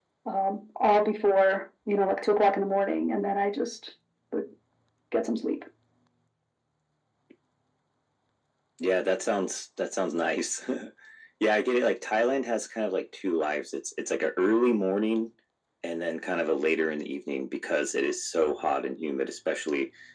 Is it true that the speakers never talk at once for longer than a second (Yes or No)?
Yes